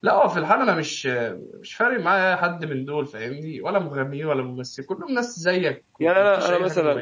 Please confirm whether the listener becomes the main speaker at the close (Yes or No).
Yes